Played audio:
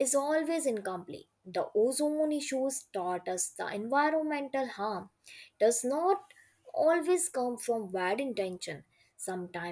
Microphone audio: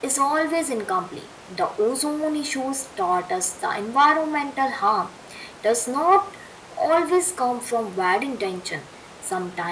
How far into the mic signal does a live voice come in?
none

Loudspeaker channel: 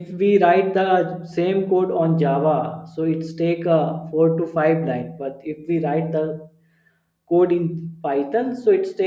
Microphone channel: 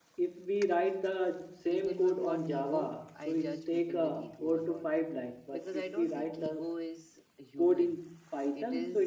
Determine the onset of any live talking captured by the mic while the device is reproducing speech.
1.7 s

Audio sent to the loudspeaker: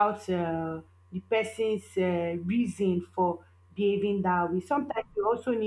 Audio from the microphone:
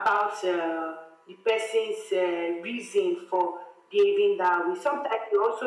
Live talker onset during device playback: none

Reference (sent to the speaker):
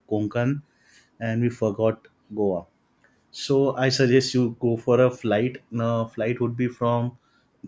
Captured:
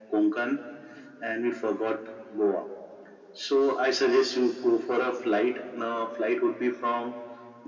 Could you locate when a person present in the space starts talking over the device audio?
none

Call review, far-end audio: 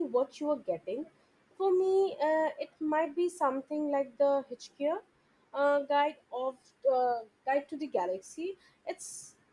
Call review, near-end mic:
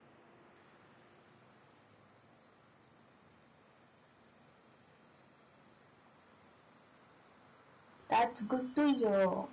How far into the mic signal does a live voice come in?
8.1 s

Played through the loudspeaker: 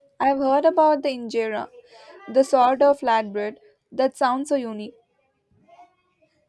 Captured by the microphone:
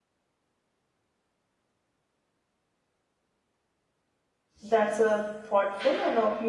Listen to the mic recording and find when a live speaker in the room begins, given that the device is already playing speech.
4.6 s

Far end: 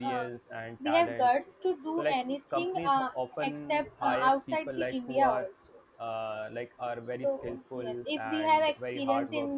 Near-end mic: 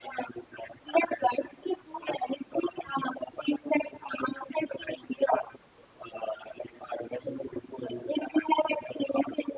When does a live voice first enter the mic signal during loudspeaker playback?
none

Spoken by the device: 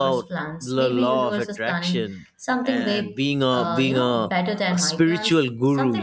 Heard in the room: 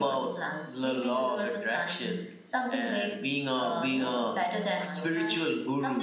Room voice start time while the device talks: none

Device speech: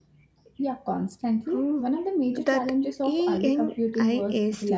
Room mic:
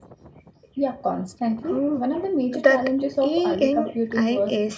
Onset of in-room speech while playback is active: none

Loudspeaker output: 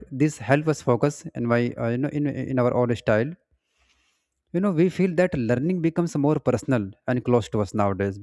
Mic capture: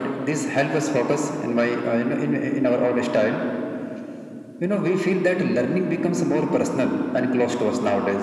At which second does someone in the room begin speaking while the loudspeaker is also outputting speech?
none

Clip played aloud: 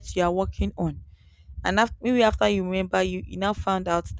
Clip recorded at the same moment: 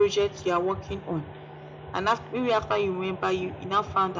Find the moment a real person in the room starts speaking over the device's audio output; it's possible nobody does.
none

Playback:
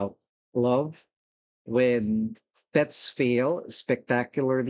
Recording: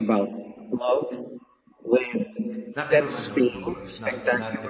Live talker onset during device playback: 2.7 s

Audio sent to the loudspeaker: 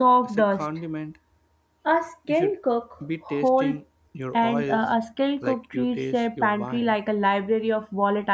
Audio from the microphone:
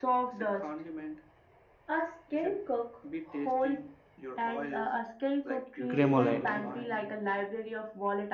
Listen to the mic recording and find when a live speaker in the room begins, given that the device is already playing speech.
5.9 s

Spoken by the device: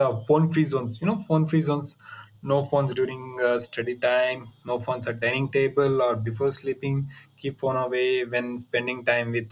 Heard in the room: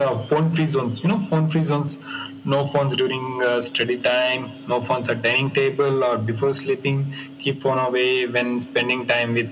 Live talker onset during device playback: none

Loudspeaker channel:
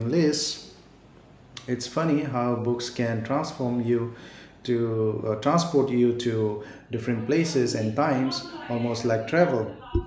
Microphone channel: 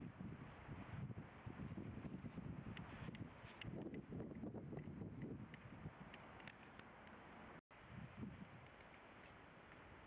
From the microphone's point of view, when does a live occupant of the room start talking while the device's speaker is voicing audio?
none

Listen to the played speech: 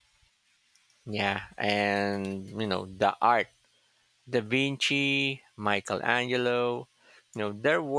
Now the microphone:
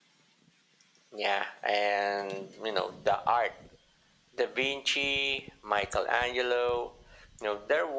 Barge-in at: none

